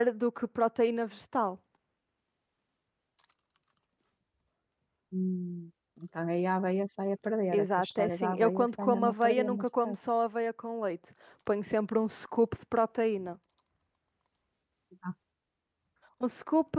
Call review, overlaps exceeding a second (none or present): present